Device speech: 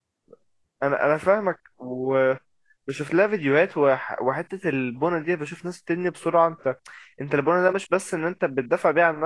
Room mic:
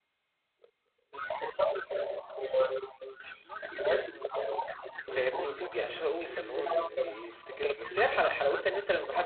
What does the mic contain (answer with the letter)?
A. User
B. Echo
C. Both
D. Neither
C